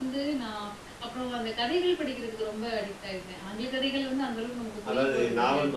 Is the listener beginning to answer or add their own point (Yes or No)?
Yes